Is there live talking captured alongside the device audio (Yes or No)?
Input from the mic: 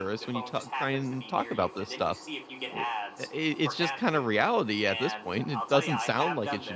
Yes